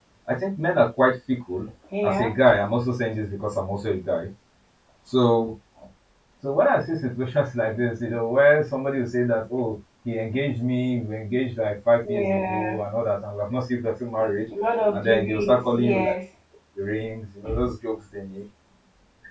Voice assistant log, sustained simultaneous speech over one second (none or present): present